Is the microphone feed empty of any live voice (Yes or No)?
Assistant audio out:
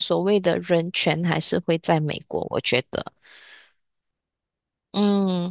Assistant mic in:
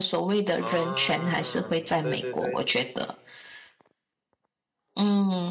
No